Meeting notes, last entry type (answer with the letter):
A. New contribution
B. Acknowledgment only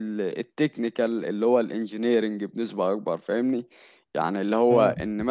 B